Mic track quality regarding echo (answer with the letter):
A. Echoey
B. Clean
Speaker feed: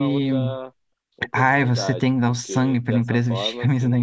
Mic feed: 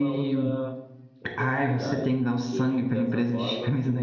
A